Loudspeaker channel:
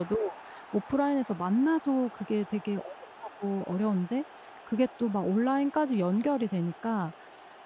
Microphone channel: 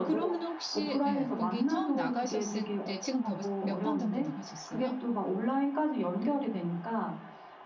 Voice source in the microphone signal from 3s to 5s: both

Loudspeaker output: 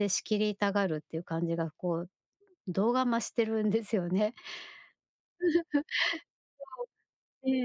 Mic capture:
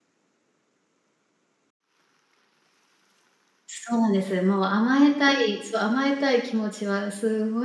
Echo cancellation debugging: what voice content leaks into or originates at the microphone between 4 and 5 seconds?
user only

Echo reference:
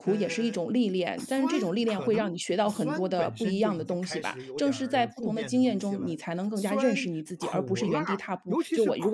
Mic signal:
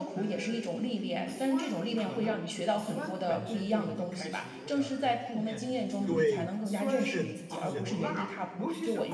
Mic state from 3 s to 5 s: echo only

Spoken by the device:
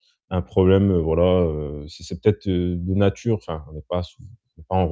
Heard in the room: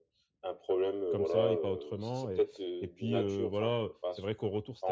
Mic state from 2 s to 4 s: both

